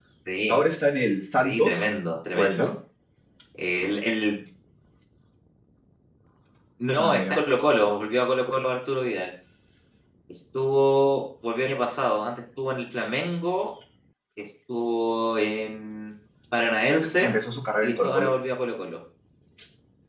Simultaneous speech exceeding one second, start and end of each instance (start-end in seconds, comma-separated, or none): none